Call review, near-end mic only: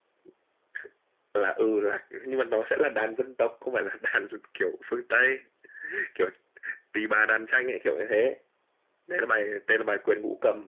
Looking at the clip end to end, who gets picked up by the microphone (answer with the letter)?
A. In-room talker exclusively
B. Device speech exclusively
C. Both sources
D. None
B